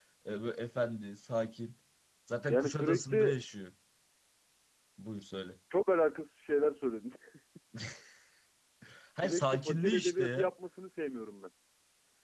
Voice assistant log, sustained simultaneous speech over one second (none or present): present